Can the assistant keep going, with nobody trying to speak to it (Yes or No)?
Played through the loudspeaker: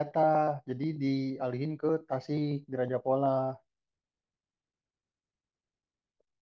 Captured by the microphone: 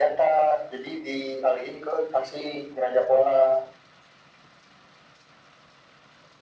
Yes